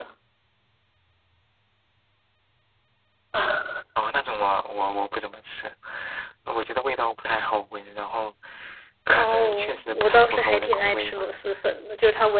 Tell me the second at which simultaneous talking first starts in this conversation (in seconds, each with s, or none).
9.1 s